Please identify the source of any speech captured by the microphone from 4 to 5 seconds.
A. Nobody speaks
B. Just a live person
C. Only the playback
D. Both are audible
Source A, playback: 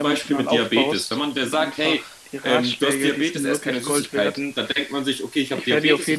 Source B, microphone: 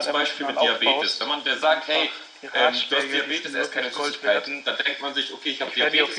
C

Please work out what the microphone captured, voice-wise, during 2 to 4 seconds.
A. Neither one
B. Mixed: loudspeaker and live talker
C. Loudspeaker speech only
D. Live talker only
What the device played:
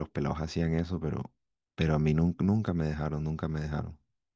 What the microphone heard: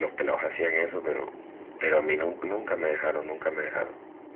C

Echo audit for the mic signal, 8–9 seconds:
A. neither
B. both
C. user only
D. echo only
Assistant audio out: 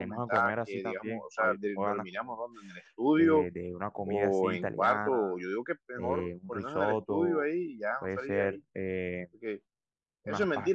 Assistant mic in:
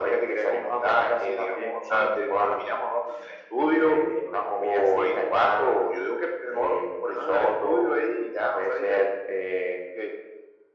D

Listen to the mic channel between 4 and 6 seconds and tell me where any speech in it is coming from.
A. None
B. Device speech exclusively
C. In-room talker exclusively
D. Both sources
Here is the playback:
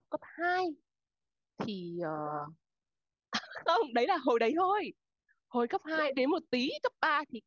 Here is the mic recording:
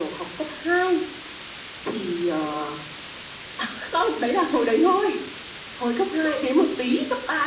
B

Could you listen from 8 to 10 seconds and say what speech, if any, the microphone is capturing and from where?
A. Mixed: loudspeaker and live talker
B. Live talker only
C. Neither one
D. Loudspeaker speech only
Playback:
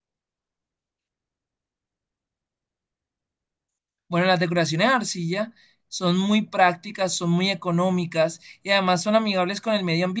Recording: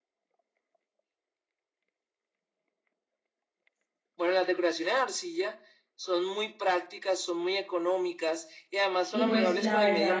A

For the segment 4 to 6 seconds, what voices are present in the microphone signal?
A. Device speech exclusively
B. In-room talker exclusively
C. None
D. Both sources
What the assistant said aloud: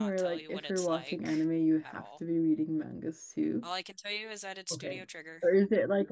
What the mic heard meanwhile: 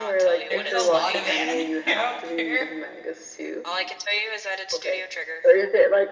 A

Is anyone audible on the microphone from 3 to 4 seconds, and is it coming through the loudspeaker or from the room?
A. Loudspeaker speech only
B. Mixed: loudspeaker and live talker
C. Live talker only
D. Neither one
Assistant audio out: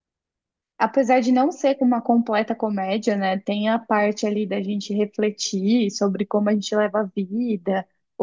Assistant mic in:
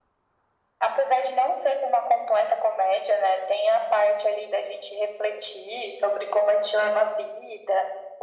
A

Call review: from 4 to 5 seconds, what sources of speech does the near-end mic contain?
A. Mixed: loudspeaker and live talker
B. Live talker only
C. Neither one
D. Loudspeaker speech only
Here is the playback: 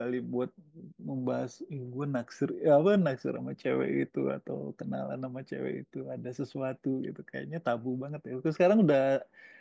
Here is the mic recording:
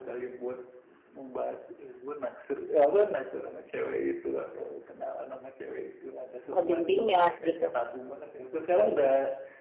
D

